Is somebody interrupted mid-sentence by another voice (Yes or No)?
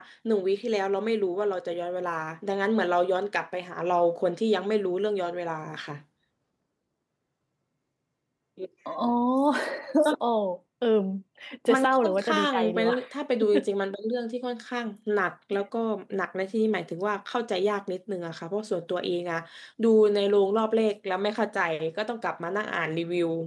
Yes